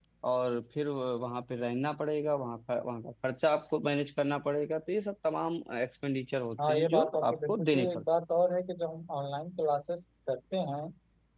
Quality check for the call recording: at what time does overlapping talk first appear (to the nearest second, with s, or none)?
7 s